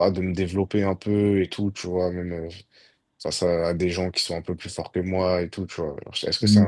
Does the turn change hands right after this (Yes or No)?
No